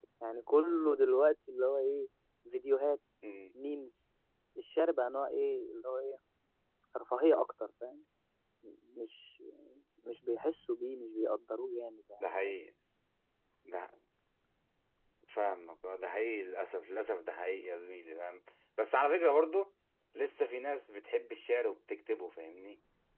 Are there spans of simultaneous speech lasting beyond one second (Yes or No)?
No